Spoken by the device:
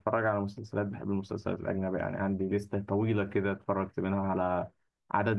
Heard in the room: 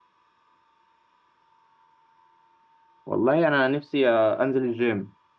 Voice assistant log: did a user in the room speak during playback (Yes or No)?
Yes